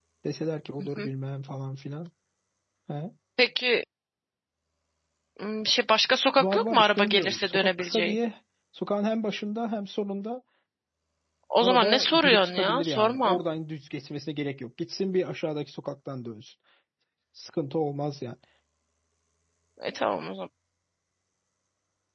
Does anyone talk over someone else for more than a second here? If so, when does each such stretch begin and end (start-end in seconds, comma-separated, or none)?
6.4-8.2, 11.6-13.4